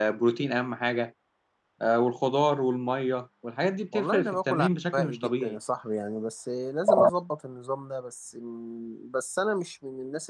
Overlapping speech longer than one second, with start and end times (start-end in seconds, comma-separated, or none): 3.9-5.6